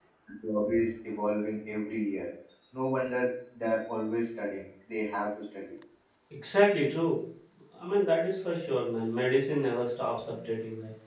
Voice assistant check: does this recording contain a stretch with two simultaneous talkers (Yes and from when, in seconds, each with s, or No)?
No